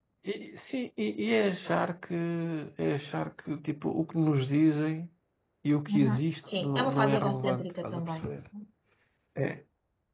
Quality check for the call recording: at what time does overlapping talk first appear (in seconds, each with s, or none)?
5.9 s